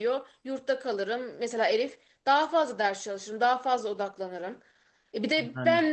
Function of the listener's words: listening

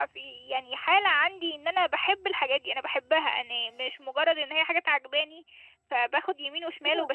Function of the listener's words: taking over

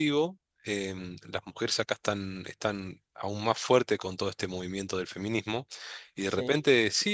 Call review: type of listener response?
listening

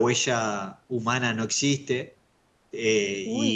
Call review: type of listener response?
listening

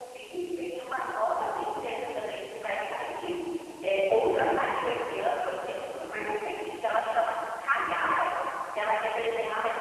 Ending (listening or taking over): listening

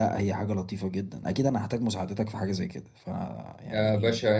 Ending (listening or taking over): taking over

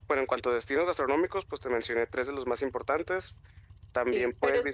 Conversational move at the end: taking over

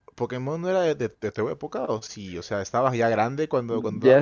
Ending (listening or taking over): taking over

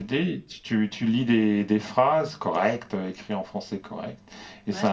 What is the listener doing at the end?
listening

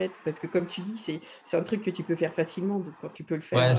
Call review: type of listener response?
taking over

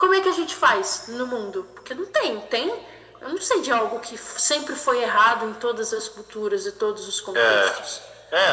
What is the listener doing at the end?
taking over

